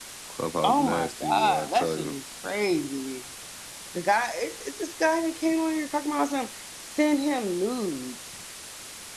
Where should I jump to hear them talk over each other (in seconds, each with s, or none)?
0.6 s